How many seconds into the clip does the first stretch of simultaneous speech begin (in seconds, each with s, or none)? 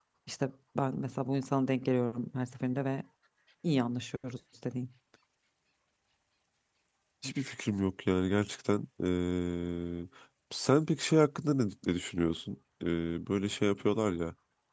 none